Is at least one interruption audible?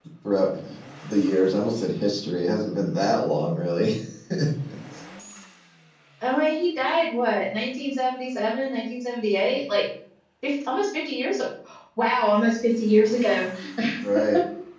No

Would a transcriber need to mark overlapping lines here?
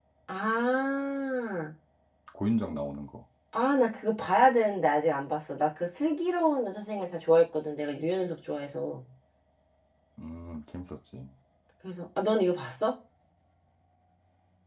No

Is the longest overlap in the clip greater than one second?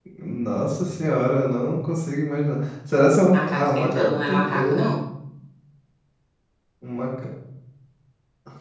Yes, from 3.3 s

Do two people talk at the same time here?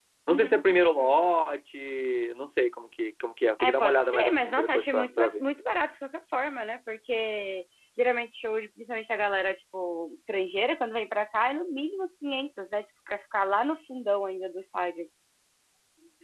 Yes, from 3.6 s

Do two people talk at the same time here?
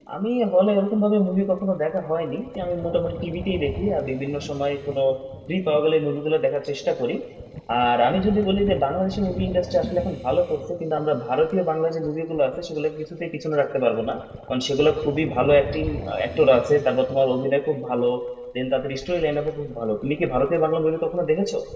No

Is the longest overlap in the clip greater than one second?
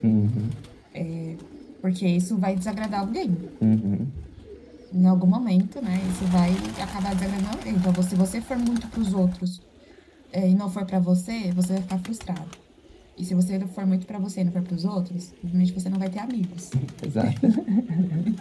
No

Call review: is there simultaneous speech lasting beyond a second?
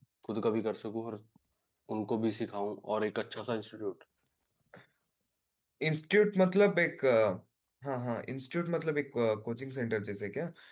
No

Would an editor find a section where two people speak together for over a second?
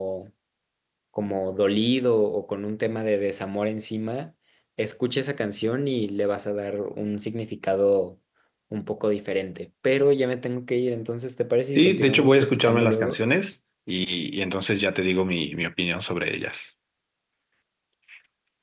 Yes, from 11.8 s

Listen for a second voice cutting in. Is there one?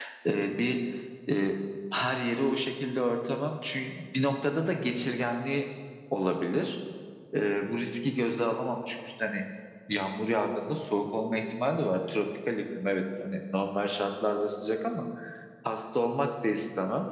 No

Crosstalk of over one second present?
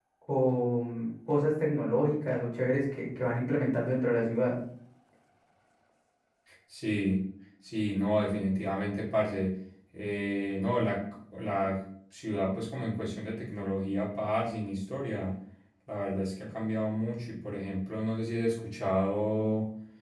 No

